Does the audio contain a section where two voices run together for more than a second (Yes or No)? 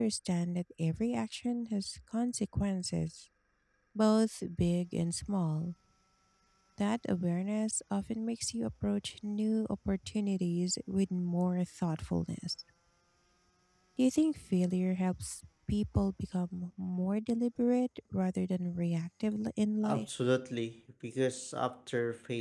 No